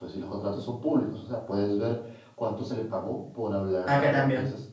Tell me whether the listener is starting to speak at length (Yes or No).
No